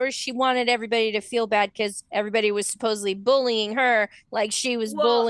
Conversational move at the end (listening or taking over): taking over